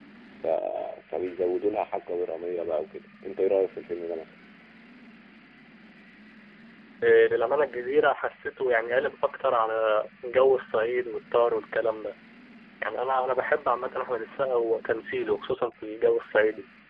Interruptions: none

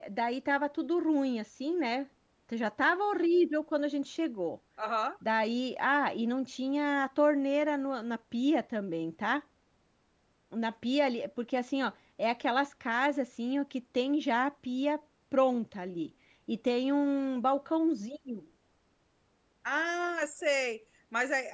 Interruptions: none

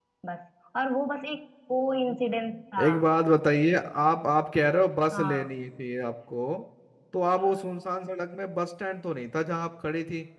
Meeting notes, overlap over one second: none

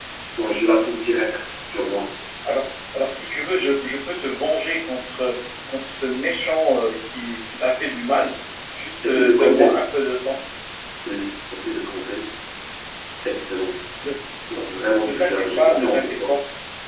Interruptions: present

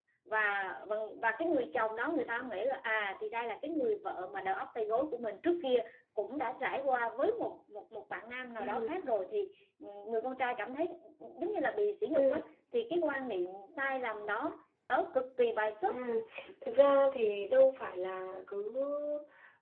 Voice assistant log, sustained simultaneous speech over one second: none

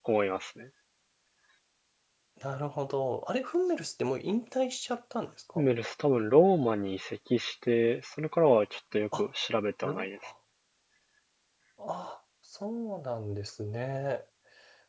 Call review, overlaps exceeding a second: none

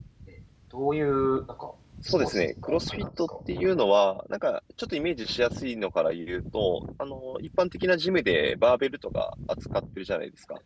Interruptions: present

